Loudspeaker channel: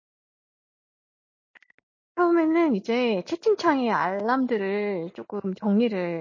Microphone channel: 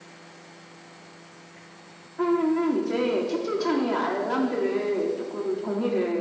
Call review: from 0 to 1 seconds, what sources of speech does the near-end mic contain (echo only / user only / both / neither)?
neither